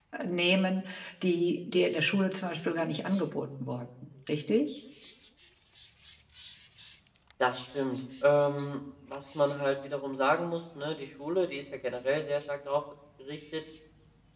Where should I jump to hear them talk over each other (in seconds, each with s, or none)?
none